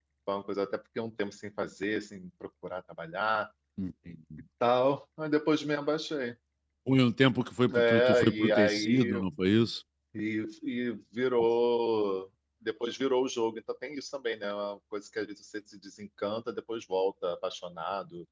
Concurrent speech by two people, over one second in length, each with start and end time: 7.7-9.2

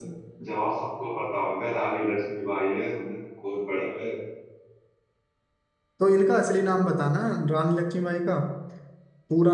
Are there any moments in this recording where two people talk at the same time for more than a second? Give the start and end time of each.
none

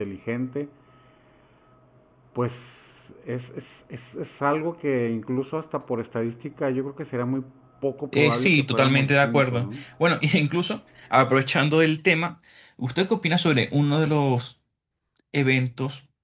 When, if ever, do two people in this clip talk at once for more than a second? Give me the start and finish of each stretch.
8.1-9.7

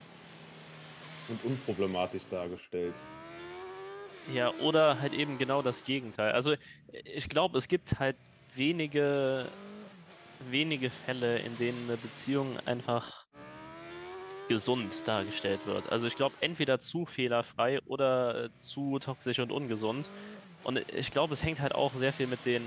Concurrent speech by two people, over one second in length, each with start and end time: none

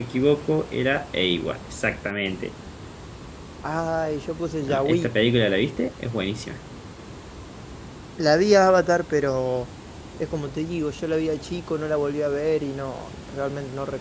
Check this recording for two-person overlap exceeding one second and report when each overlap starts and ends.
none

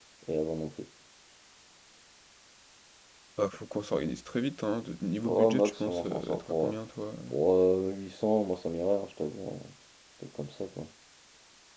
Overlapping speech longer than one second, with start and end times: 5.2-6.7

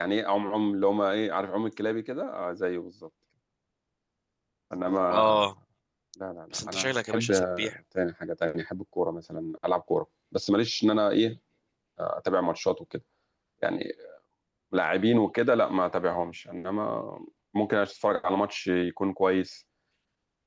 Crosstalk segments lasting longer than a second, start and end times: 6.5-7.8

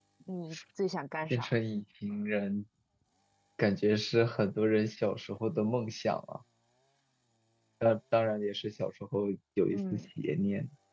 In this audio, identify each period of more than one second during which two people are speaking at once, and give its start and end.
none

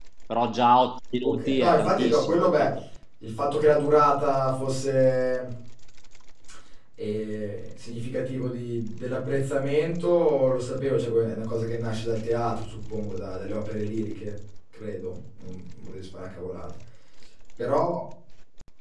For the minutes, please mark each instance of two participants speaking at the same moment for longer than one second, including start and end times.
1.2-2.7

